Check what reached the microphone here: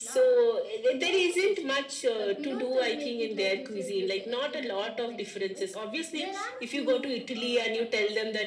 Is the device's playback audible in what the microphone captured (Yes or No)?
Yes